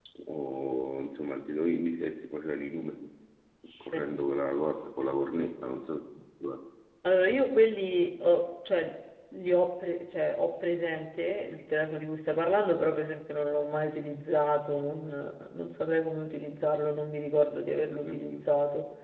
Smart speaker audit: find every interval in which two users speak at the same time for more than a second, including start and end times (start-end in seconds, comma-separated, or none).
none